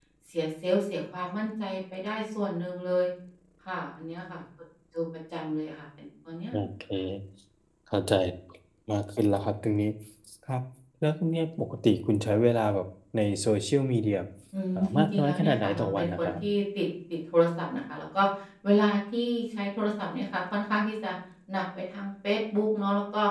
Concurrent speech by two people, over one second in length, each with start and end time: 14.8-16.3

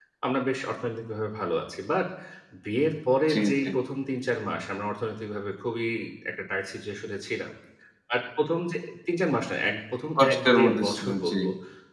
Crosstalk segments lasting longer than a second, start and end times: 10.2-11.4

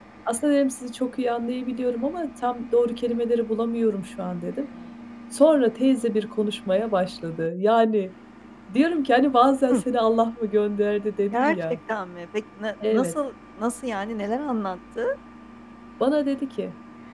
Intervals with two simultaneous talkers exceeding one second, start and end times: none

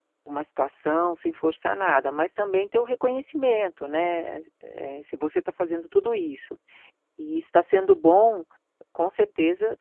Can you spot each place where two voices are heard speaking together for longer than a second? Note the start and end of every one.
none

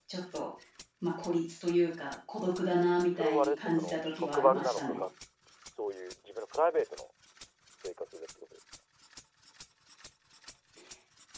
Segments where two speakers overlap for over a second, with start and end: 3.1-5.0

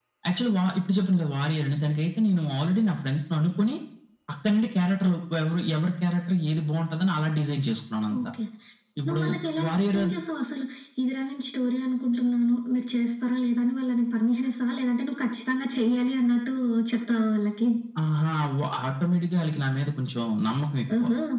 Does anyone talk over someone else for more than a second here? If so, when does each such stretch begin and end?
none

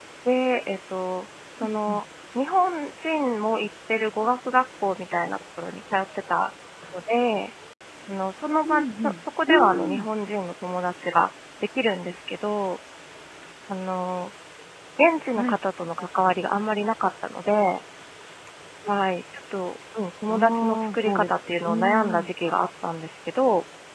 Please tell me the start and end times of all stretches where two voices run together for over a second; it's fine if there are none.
8.6-10.1, 20.3-22.3

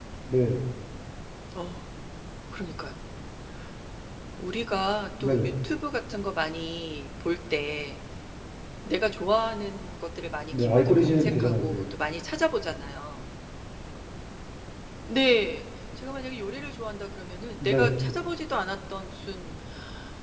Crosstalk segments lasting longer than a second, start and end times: 10.5-11.8

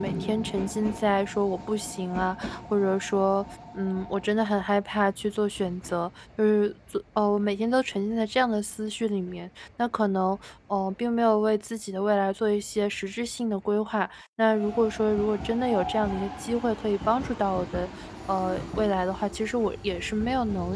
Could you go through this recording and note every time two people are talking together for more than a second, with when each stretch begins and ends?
none

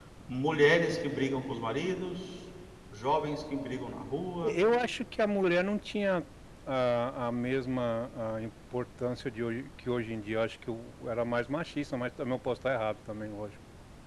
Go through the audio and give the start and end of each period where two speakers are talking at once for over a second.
none

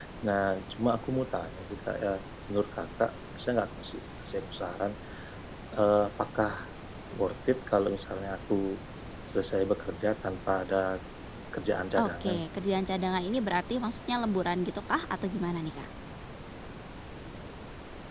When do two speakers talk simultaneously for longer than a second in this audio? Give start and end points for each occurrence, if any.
none

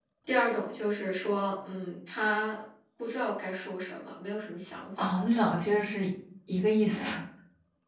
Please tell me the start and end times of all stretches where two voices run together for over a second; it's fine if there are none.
none

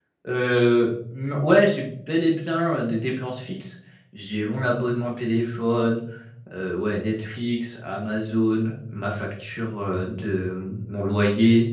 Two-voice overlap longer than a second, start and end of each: none

